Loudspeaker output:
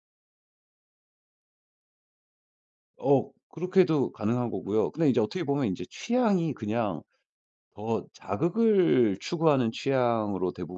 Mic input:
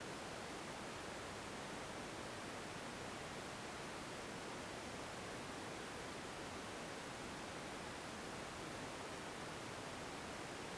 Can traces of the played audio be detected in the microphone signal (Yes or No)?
No